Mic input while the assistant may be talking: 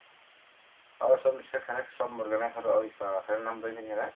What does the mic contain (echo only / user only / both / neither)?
user only